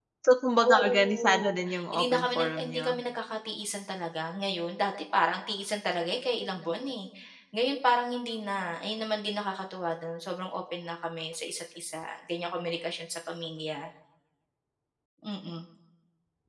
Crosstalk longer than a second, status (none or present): present